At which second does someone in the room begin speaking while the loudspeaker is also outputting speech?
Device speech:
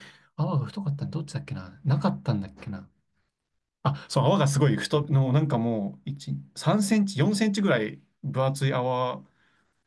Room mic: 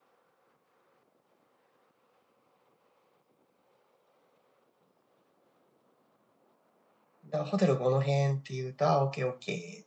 7.2 s

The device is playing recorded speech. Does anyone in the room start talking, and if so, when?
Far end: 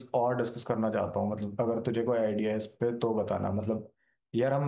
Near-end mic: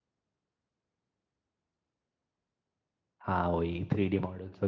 3.2 s

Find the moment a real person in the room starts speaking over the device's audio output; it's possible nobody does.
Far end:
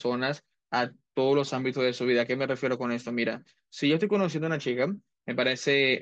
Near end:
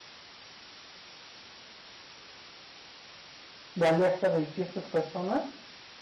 3.7 s

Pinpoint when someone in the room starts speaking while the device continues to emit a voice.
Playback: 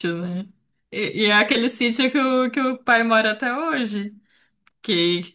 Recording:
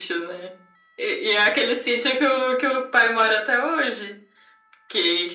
none

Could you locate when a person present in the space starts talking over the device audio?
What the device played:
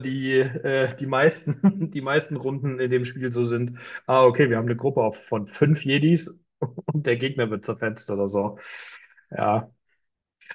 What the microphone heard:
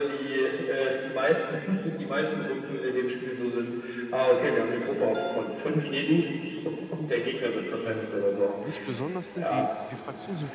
7.8 s

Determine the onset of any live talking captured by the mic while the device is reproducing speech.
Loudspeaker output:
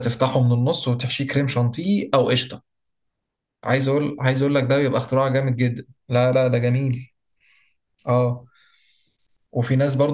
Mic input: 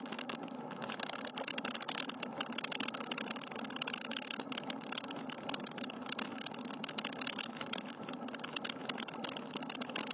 none

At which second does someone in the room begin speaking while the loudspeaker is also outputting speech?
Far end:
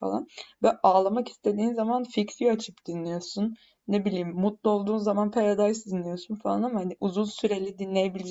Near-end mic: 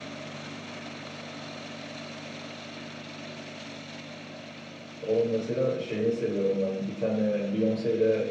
5.0 s

